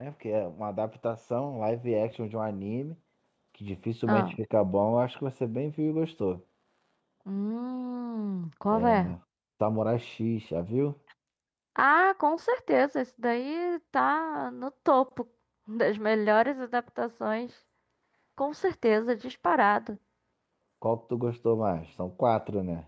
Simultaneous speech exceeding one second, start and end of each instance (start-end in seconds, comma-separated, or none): none